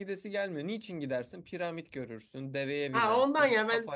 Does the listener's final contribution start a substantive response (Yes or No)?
Yes